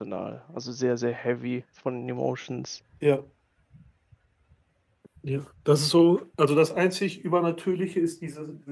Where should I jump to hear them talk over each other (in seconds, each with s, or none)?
none